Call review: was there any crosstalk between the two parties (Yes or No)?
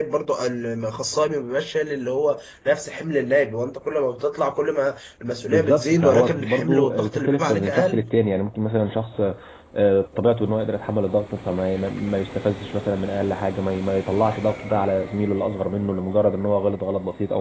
Yes